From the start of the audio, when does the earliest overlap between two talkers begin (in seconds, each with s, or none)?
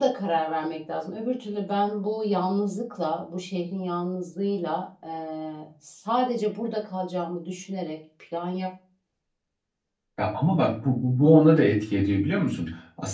none